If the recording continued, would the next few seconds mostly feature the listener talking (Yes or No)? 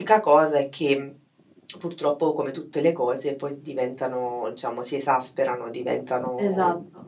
Yes